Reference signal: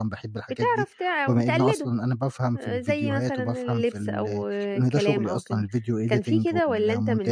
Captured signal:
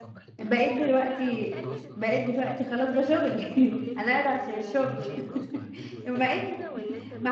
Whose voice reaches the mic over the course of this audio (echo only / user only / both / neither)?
both